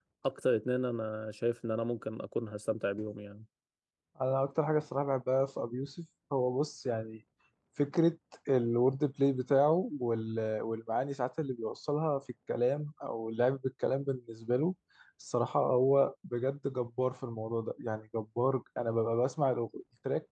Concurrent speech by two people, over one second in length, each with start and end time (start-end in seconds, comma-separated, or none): none